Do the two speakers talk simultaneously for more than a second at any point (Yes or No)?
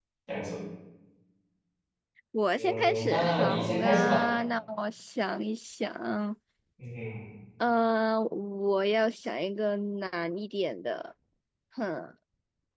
Yes